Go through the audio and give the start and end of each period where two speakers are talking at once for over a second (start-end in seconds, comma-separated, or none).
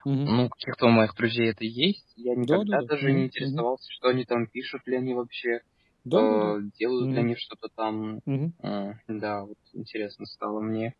2.4-3.6